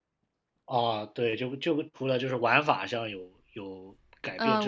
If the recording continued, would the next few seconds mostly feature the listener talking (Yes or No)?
Yes